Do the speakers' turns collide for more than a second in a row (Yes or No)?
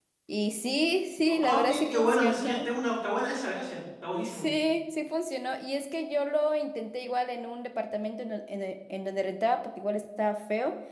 Yes